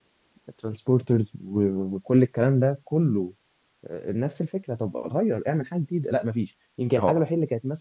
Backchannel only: Yes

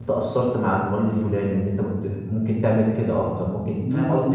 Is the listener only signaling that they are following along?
No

